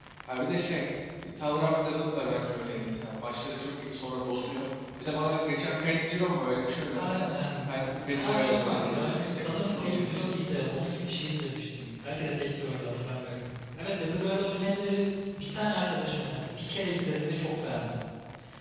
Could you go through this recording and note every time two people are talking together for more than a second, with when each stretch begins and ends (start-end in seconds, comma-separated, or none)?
8.1-10.3